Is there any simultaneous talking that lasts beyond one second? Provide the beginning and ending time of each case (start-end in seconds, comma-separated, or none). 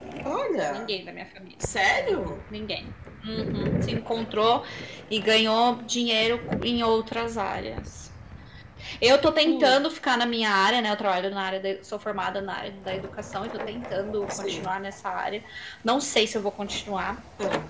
none